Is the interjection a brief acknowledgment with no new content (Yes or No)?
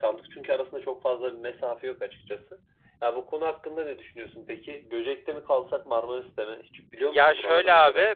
No